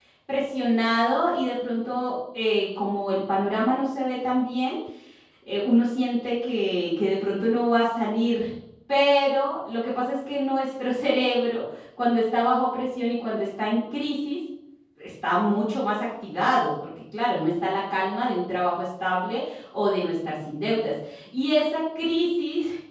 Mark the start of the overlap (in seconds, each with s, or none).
none